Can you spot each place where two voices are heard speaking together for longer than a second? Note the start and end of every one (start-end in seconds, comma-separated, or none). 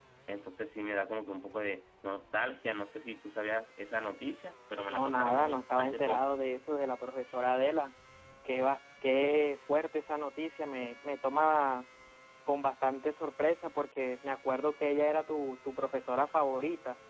4.9-6.2